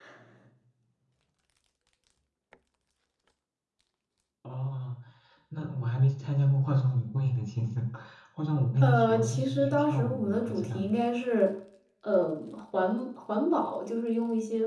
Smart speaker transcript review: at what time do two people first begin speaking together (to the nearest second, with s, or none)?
9 s